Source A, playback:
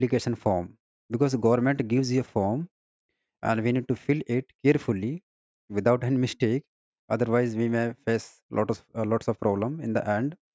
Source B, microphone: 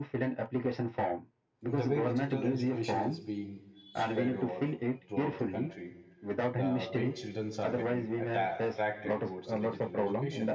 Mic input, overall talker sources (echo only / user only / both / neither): both